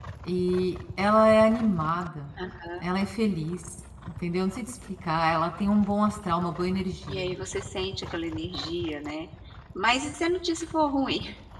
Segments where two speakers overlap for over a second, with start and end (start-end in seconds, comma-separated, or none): none